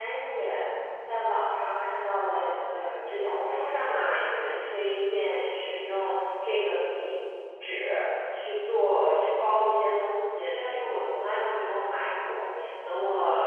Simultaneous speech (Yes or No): No